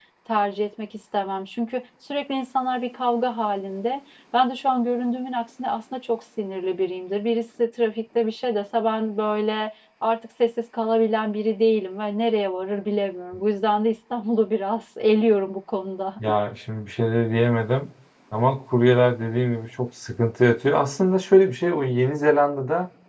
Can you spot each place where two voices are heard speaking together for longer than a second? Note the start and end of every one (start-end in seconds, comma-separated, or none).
none